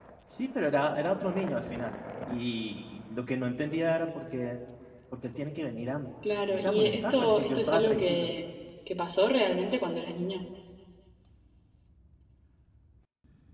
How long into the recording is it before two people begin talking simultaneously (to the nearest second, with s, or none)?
6 s